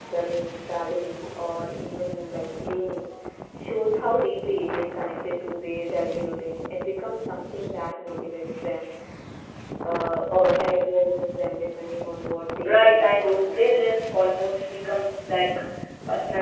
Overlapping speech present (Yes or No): Yes